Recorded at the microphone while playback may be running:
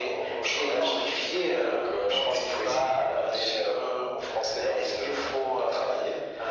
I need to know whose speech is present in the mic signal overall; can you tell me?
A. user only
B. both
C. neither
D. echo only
D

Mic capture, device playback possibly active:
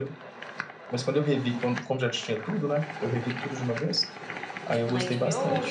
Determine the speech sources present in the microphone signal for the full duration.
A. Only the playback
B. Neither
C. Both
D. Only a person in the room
C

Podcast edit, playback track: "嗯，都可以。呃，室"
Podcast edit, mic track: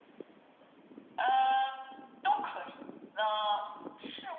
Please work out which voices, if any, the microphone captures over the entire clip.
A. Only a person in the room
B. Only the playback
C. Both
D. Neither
B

